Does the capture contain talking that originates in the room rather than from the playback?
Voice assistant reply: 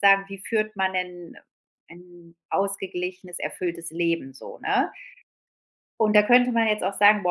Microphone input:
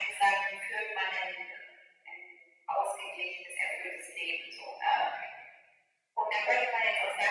No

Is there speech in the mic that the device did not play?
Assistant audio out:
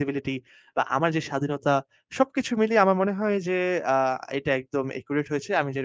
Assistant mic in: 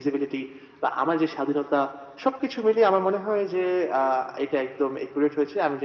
No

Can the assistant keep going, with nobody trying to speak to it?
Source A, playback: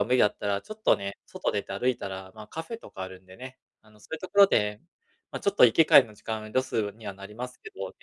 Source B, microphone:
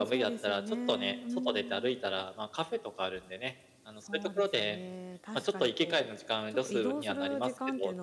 No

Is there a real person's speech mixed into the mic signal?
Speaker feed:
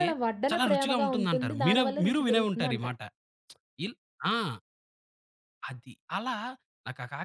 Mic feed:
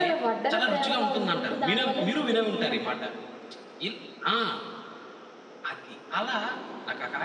No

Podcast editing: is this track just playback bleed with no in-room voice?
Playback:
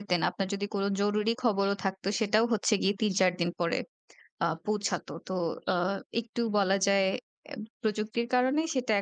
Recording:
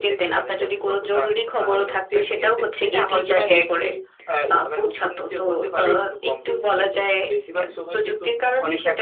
No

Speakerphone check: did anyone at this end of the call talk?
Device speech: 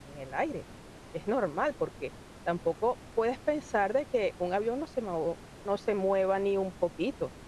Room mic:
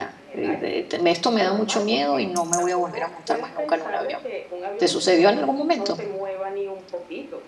Yes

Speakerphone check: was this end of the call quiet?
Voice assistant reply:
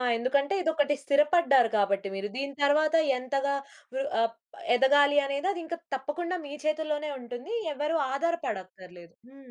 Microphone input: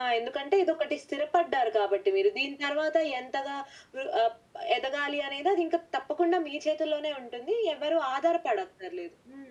Yes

